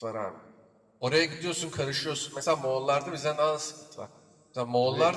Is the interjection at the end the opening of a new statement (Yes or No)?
No